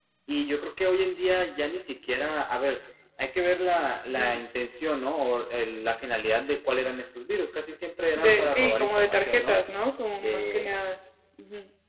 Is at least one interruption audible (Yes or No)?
Yes